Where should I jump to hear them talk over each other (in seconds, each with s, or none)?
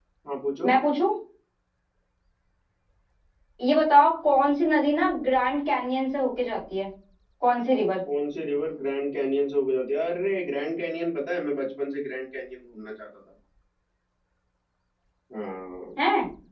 none